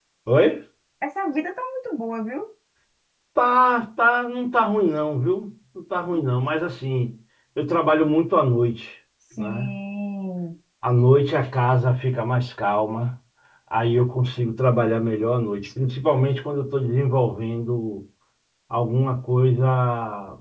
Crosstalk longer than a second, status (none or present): none